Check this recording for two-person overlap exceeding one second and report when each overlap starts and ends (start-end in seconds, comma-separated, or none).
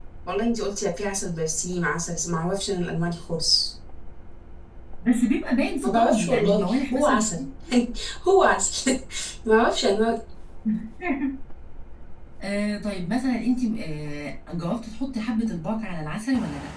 5.8-7.3